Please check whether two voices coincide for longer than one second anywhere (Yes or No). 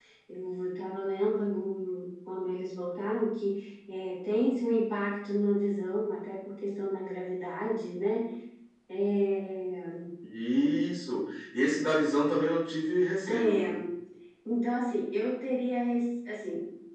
No